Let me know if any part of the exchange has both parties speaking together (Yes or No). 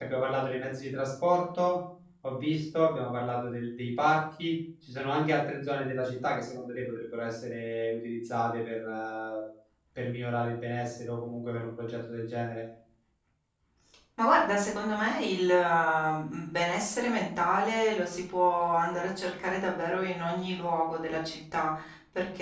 No